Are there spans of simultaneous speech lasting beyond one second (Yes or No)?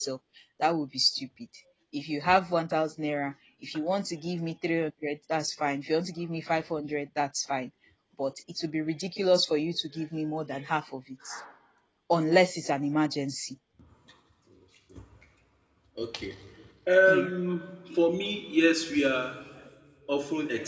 No